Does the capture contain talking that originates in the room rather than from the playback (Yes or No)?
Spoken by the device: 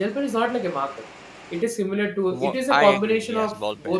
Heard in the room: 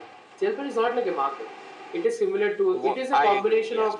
No